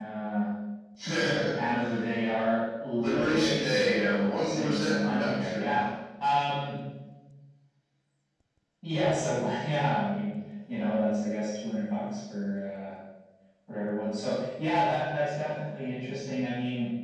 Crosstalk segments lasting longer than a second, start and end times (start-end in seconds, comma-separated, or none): 3.0-5.7